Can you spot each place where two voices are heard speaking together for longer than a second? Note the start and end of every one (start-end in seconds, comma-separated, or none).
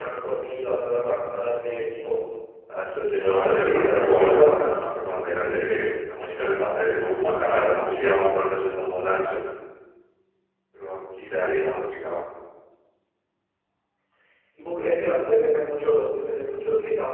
3.3-5.0